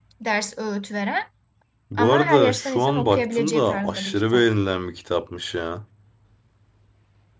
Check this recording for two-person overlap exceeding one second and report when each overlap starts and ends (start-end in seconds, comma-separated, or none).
2.0-4.4